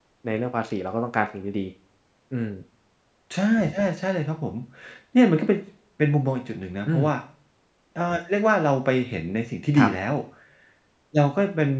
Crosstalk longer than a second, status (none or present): none